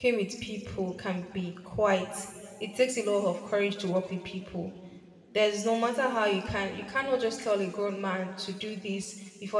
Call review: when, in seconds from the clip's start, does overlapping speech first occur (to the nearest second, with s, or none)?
none